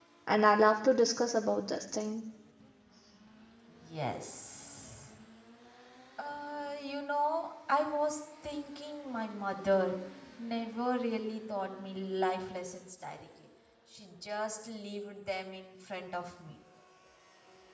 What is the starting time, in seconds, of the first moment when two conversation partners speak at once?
none

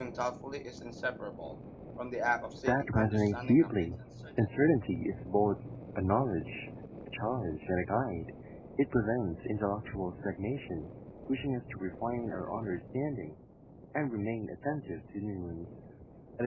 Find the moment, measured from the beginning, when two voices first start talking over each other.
2.7 s

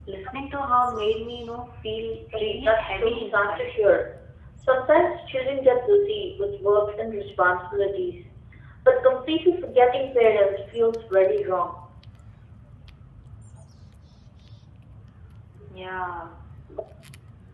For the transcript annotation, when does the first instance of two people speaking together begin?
2.3 s

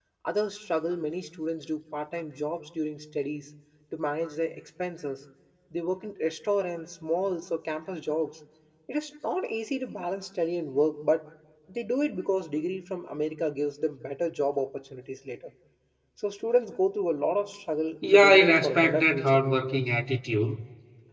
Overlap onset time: 18.0 s

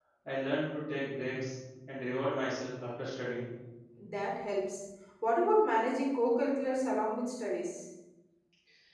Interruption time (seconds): none

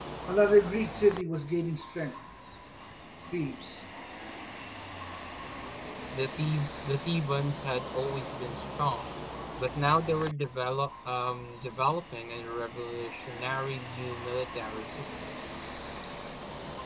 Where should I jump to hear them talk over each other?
none

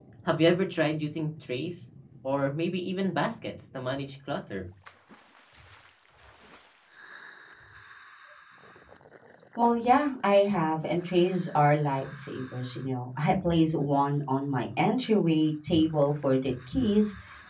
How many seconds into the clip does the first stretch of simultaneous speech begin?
none

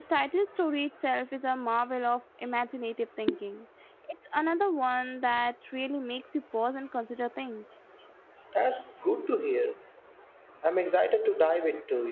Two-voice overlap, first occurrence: none

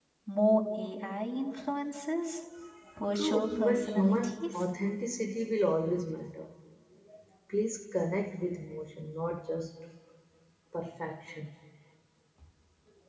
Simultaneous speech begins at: 3.1 s

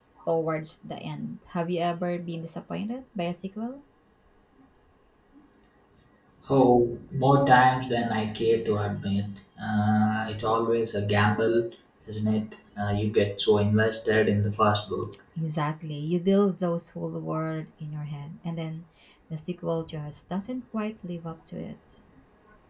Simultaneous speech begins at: none

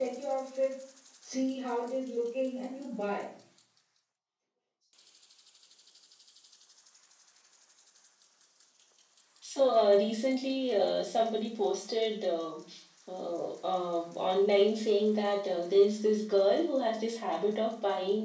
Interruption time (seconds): none

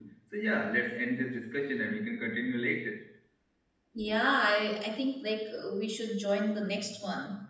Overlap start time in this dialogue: none

